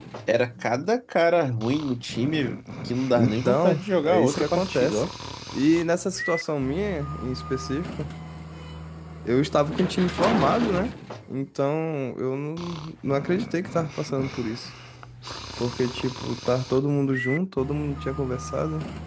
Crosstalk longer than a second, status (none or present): present